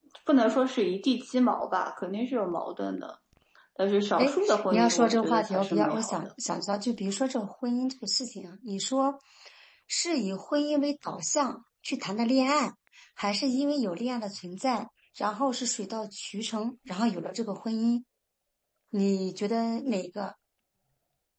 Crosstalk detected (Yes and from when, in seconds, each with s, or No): Yes, from 4.2 s